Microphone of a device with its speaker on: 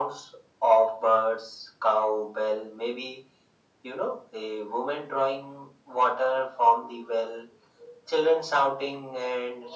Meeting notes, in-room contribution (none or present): none